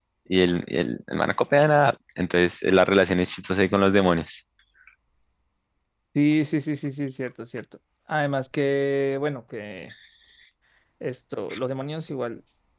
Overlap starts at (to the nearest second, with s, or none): none